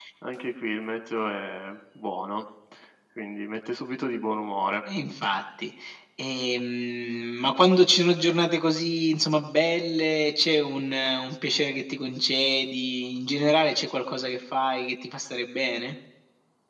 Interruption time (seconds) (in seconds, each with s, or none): none